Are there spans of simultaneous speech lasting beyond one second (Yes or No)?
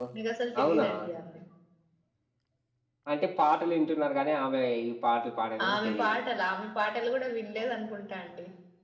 No